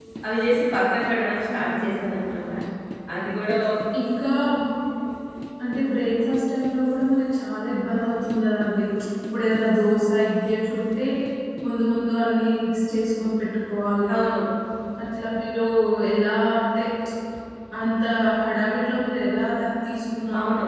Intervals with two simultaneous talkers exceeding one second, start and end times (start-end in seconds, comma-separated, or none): none